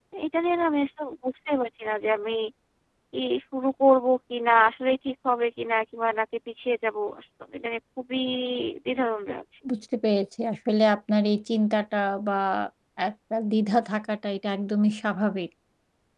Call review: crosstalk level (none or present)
none